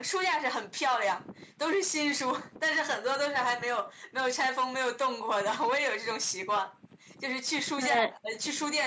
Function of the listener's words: listening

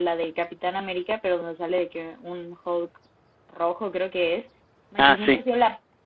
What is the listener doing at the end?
listening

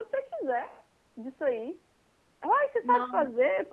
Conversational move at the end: listening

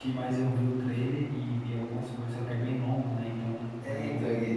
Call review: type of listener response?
taking over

